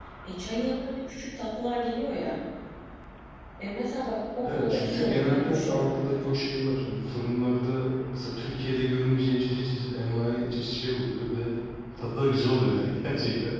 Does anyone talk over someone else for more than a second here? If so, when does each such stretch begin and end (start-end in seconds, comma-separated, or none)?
4.4-6.4